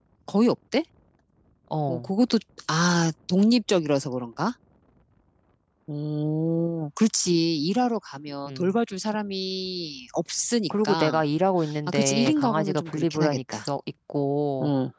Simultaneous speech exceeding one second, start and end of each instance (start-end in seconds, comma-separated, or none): 11.9-13.6